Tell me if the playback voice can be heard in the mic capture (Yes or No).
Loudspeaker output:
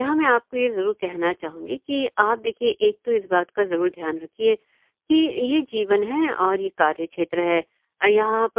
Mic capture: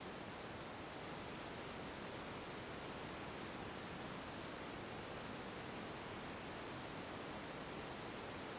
No